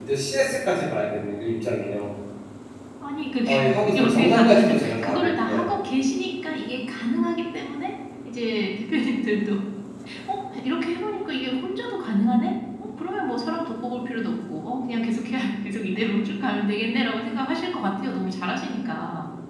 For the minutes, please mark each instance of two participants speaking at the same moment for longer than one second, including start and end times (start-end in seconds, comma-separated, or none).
3.9-5.6